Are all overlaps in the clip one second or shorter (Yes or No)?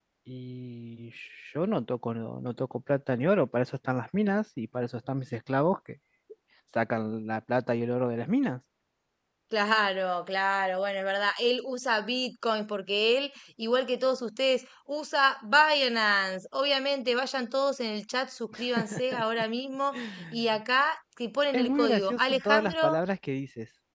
No